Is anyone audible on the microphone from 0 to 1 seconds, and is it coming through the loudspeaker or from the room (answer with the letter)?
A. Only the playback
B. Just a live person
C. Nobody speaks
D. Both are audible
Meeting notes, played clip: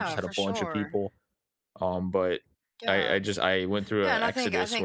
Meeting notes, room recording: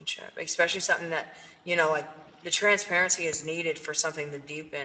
B